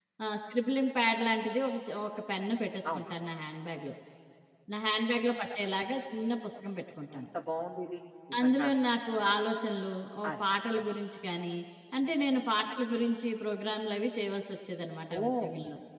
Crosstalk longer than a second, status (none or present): none